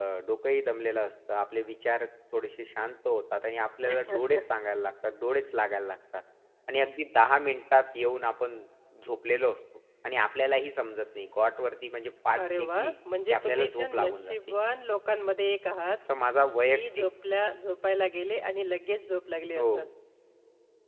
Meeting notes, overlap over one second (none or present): present